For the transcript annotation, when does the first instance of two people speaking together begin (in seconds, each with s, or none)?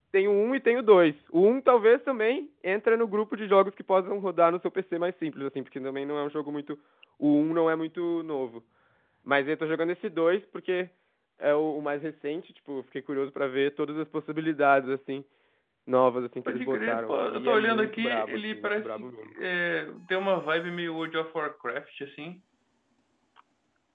16.5 s